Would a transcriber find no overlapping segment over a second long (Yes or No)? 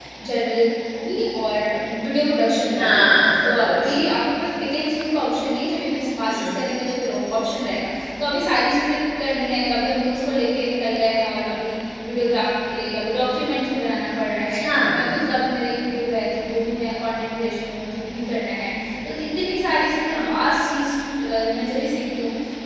Yes